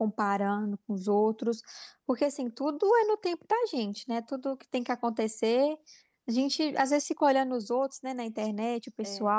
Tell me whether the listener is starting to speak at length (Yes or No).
No